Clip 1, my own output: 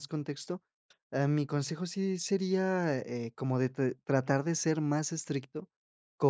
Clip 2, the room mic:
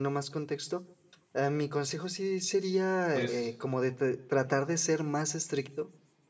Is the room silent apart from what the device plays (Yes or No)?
No